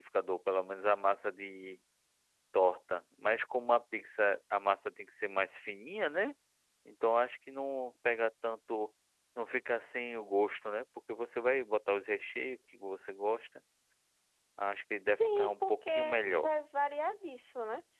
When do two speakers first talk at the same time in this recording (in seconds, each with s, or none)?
15.1 s